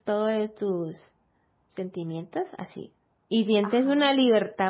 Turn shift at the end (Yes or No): No